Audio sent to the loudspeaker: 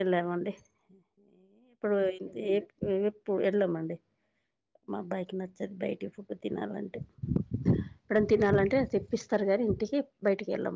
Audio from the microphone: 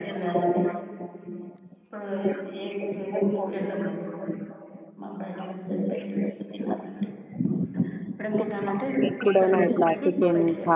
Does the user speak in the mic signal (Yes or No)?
Yes